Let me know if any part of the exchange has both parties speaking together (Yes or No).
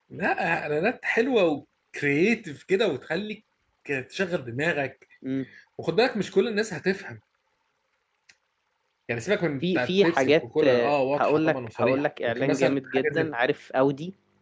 Yes